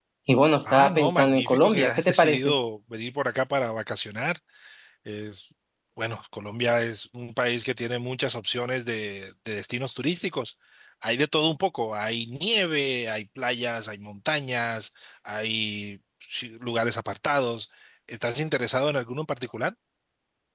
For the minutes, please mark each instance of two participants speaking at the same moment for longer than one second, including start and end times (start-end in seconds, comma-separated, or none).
0.7-2.5